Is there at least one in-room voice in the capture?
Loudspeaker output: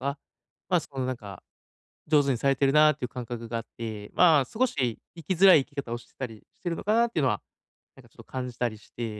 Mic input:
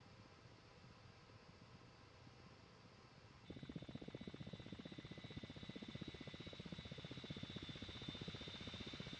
No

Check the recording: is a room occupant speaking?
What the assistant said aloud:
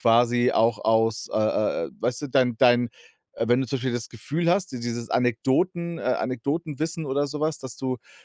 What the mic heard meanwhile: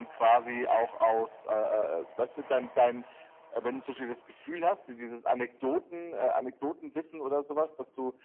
No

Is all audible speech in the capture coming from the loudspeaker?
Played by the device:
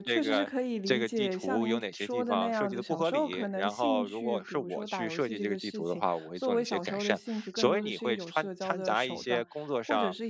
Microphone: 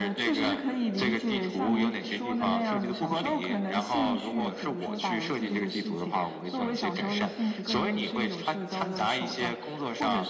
Yes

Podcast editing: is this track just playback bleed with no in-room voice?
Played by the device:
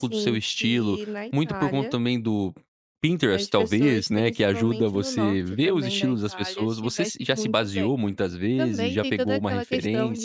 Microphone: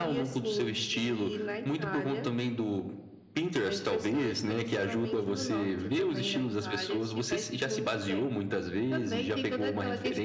Yes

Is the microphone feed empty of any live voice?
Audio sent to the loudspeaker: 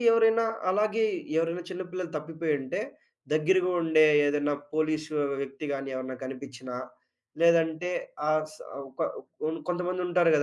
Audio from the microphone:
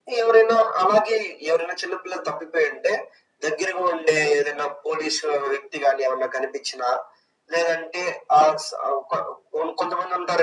Yes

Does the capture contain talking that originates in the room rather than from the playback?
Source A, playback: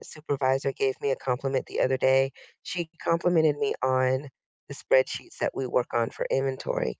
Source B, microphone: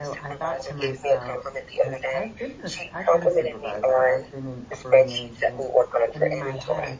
Yes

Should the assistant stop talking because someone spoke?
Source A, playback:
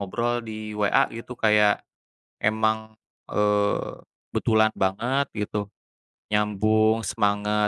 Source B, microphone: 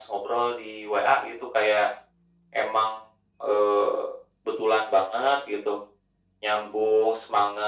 No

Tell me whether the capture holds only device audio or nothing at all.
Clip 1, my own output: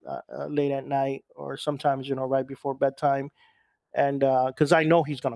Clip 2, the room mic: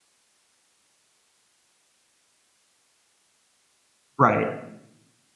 No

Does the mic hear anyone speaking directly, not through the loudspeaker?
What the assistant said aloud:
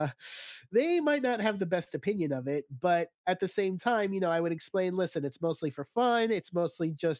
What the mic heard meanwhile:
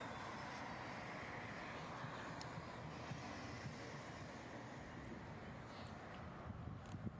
No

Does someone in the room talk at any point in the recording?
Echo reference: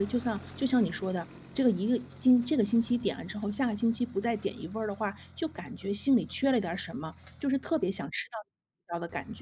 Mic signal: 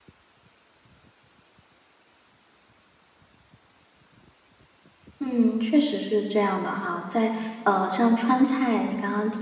Yes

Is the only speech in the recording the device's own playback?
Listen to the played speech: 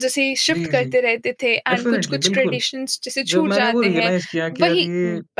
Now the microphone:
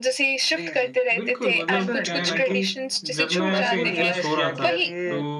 No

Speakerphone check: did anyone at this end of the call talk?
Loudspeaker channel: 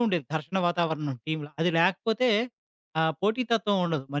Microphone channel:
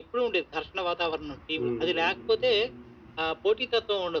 Yes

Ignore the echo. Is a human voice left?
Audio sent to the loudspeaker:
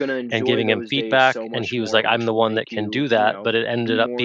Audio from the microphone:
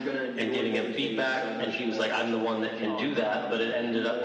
Yes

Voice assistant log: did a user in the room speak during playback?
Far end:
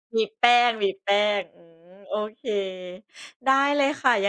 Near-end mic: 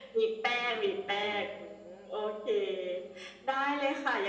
Yes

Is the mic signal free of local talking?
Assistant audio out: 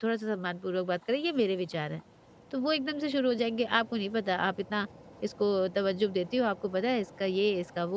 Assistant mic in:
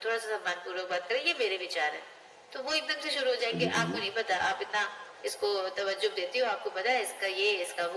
No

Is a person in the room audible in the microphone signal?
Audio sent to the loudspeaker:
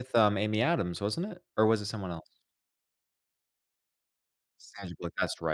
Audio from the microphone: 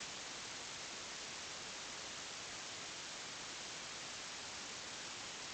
No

